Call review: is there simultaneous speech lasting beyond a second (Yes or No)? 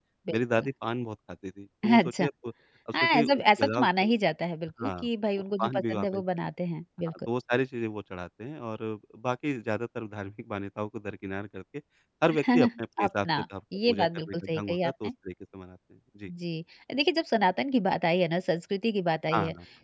Yes